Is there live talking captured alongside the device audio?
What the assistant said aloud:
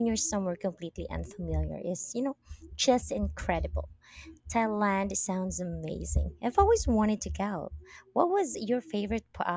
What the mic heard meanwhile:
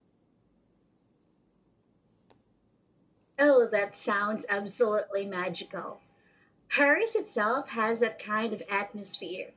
Yes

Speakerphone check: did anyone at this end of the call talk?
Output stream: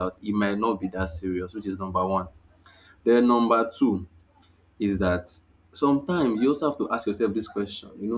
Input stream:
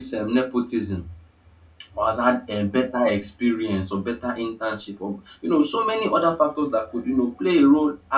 Yes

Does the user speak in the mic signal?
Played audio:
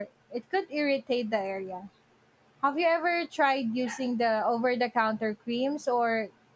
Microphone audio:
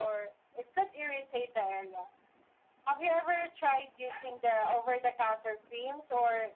No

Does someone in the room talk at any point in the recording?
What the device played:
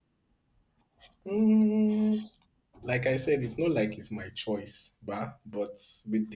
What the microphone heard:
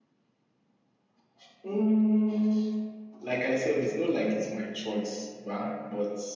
No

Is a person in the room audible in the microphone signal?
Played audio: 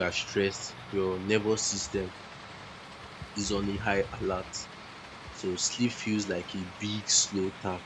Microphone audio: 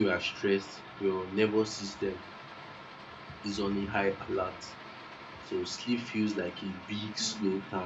Yes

